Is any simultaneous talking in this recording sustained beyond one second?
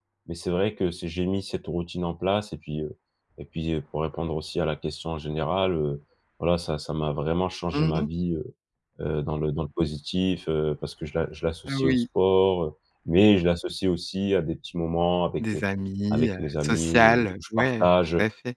Yes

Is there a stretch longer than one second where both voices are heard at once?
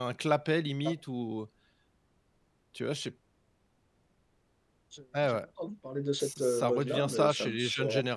Yes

